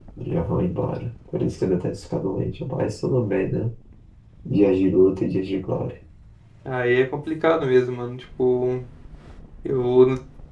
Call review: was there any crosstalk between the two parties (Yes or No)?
No